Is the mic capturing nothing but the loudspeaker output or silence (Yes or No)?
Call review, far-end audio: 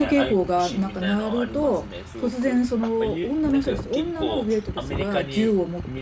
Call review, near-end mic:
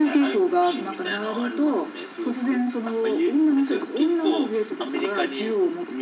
Yes